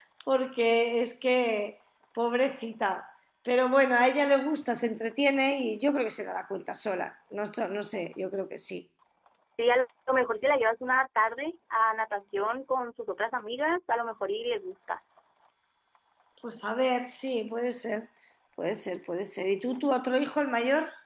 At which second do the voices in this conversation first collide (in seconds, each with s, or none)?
none